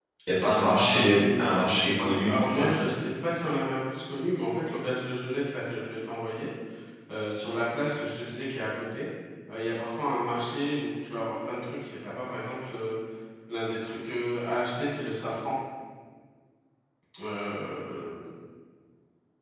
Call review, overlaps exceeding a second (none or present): present